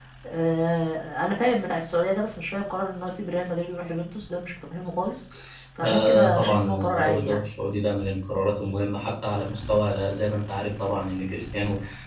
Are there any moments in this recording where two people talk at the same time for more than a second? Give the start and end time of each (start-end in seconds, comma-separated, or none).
5.8-7.4